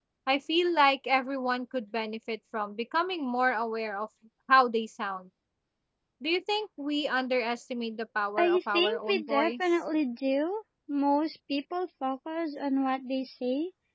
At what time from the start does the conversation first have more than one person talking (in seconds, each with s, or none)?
8.4 s